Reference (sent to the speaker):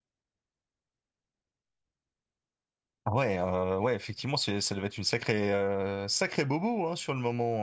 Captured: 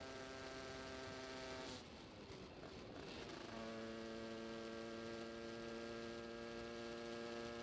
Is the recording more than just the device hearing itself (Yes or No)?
No